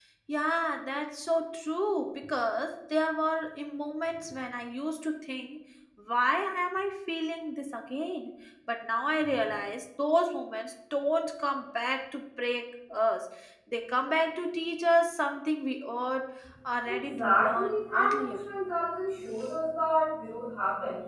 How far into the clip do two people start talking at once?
16.9 s

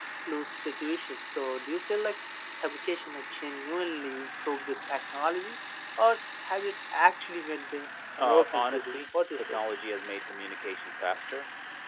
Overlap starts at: 8.2 s

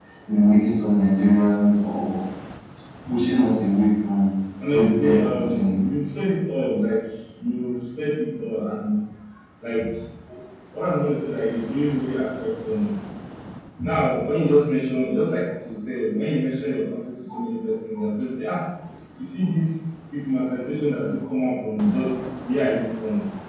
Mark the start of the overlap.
4.7 s

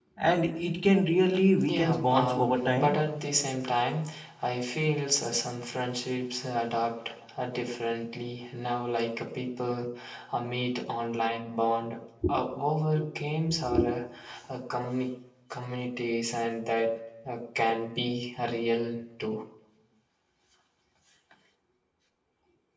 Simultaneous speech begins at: 1.6 s

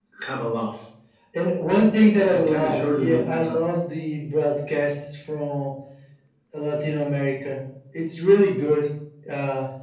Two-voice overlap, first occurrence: 2.3 s

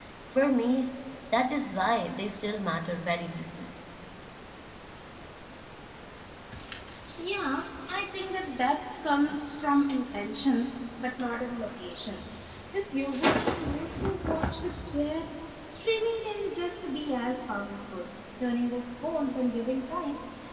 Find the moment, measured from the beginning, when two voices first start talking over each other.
none

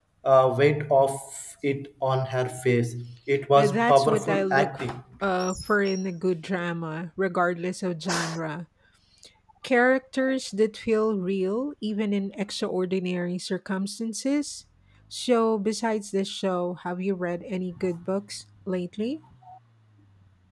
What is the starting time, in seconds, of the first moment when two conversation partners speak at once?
3.6 s

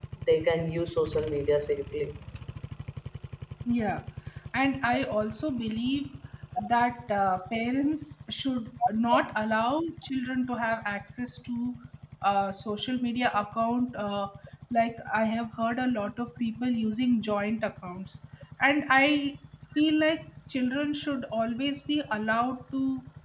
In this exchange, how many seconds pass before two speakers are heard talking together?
none

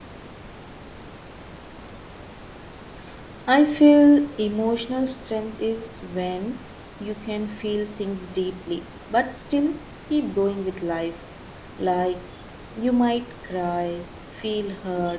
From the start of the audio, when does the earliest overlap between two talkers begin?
none

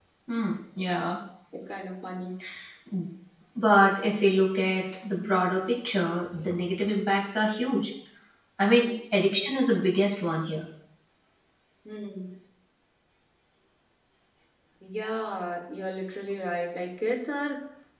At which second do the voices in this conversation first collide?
none

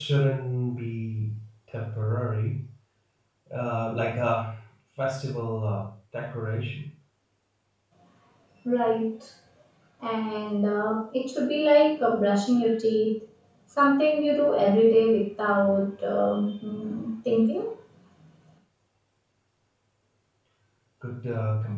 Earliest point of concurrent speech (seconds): none

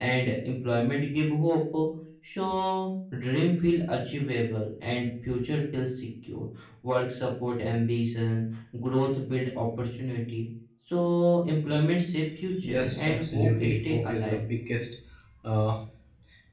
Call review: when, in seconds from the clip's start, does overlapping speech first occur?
12.6 s

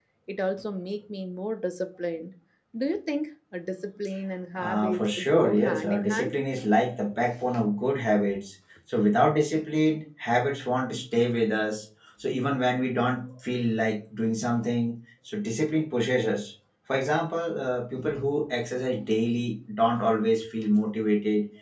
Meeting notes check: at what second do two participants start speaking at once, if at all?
4.6 s

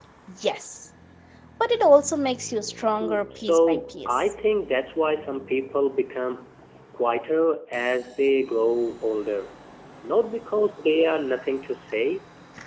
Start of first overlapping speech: 3.0 s

